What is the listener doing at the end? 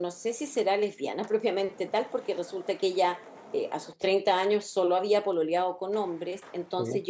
listening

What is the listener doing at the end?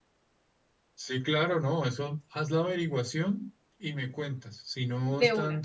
listening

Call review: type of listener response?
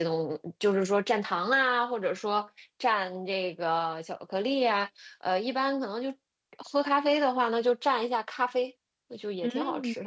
taking over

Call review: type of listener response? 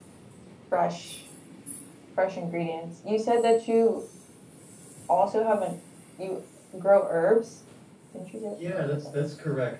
taking over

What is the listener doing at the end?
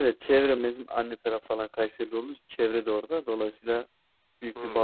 listening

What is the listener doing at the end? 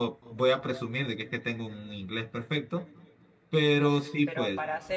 taking over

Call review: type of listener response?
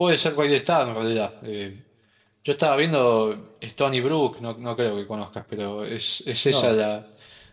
listening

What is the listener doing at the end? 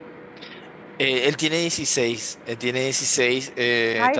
listening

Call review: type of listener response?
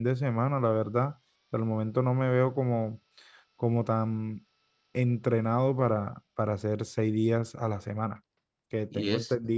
listening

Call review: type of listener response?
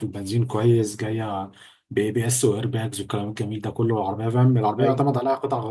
listening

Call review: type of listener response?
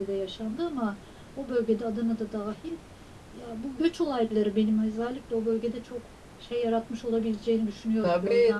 taking over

